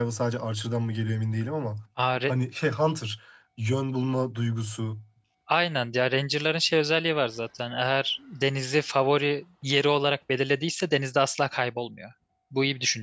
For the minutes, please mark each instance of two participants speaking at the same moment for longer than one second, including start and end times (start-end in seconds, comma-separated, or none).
none